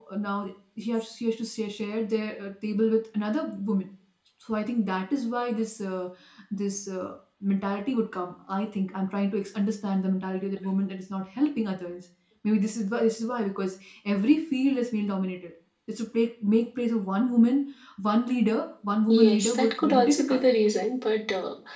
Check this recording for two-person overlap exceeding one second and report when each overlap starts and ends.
19.1-20.4

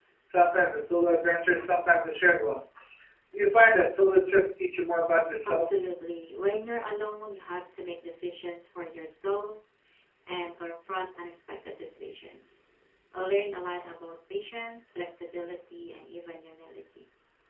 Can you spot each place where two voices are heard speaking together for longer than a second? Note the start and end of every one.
none

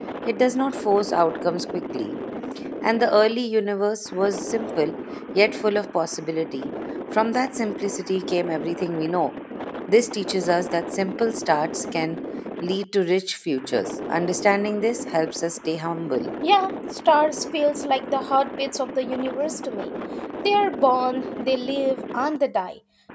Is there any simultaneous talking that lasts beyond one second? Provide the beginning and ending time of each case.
none

